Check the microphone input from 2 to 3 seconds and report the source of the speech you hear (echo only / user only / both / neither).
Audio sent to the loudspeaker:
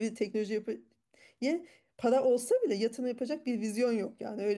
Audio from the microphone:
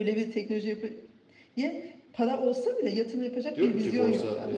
echo only